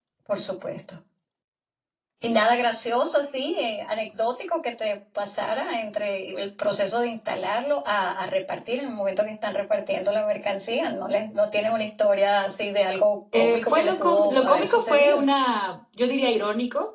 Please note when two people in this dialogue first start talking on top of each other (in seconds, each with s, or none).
13.3 s